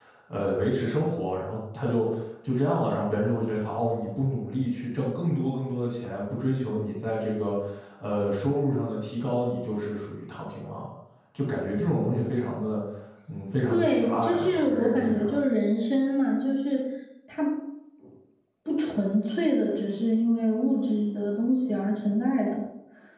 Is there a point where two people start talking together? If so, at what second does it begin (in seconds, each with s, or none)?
13.7 s